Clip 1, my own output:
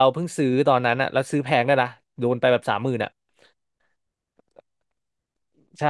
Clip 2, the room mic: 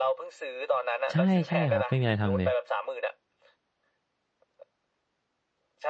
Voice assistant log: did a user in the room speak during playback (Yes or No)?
Yes